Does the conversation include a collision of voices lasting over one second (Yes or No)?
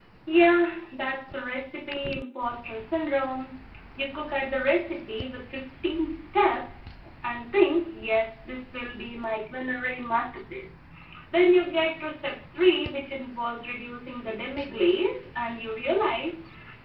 No